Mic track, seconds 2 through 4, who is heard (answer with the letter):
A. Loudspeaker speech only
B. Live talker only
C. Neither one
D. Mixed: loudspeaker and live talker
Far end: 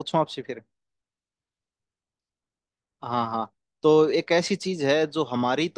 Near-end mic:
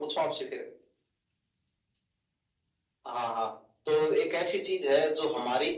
A